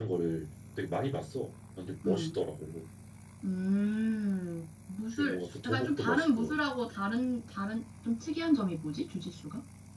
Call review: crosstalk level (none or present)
present